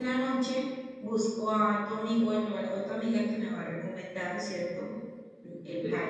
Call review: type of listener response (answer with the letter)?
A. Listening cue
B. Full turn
B